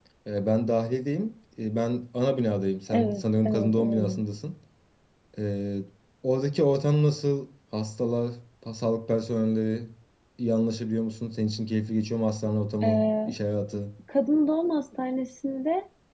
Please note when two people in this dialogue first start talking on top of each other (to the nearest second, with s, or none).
3 s